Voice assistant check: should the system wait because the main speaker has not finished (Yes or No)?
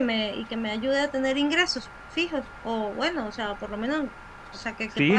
No